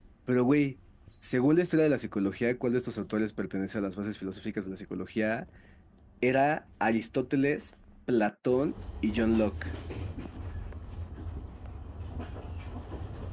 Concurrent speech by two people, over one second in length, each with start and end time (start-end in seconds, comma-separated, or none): none